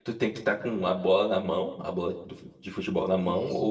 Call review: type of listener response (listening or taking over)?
taking over